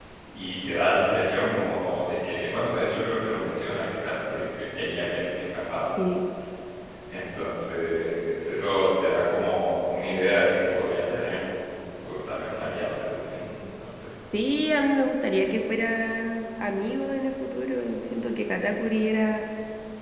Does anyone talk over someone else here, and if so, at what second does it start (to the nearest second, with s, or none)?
none